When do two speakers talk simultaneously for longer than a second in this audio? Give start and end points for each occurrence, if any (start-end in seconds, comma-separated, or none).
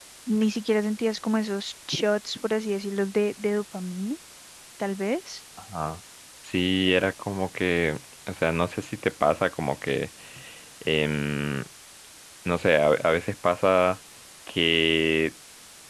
none